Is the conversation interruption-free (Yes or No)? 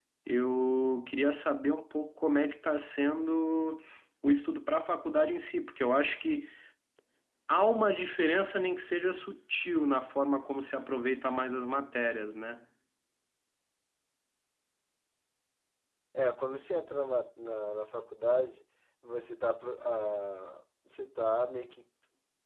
Yes